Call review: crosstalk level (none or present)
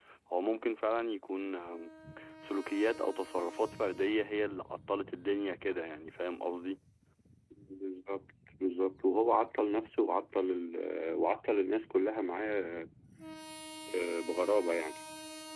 none